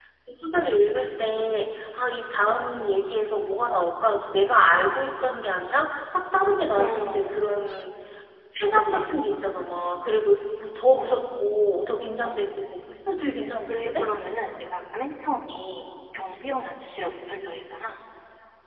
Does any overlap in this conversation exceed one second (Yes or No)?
No